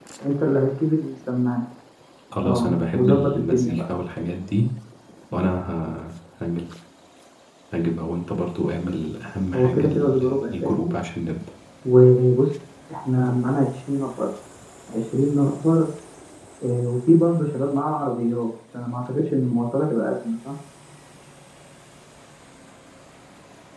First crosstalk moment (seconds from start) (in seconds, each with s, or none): 2.4 s